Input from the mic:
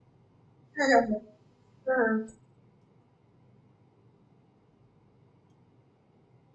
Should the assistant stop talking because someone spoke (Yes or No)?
Yes